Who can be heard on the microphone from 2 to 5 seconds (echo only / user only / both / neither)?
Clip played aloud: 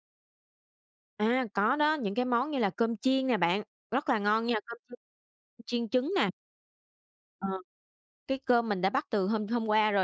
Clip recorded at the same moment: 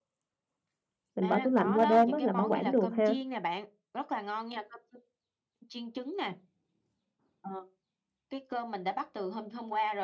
both